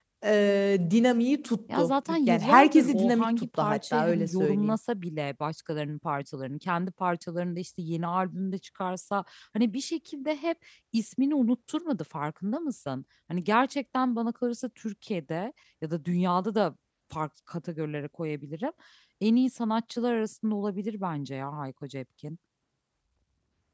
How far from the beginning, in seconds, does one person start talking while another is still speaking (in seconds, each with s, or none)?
1.7 s